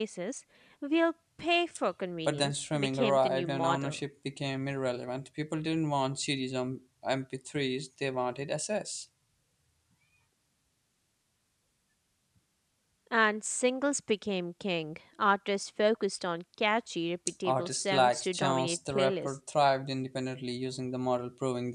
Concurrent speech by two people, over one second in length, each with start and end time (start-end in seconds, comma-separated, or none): 2.3-4.0, 17.4-19.4